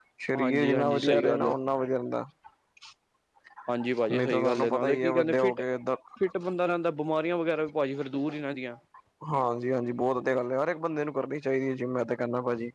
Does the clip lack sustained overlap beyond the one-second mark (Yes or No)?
No